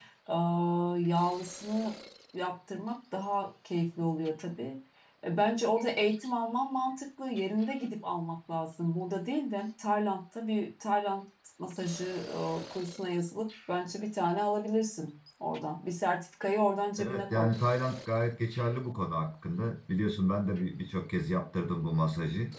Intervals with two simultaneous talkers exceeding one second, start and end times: none

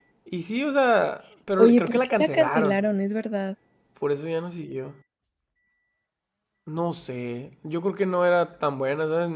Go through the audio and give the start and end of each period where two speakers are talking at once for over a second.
1.6-2.8

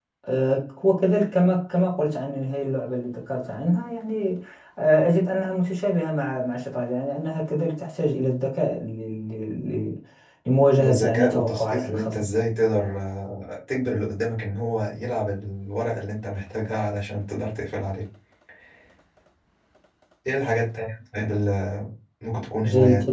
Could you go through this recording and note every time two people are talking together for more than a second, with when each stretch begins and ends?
10.9-12.3

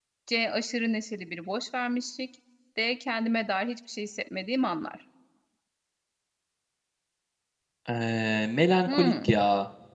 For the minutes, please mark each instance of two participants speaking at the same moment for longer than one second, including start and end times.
none

